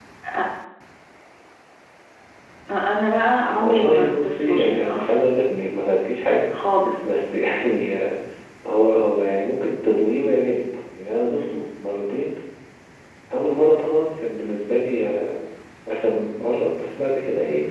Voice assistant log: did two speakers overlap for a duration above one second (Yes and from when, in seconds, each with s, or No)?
Yes, from 3.4 s